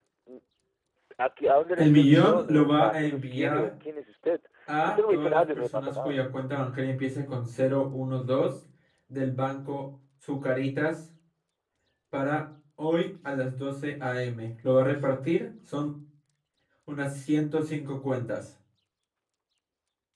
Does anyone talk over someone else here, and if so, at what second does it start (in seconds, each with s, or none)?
1.8 s